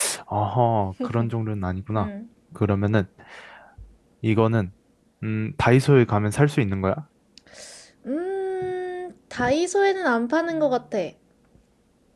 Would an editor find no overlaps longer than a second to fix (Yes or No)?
Yes